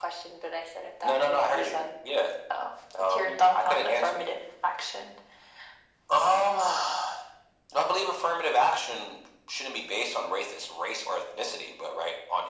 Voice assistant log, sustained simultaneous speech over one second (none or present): present